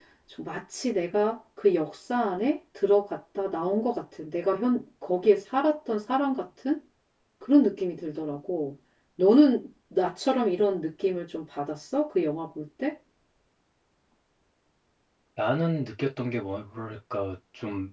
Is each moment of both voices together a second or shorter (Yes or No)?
Yes